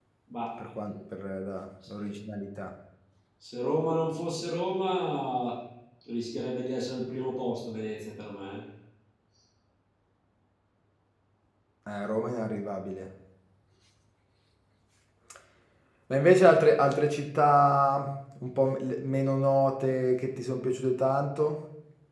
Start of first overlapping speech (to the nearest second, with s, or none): none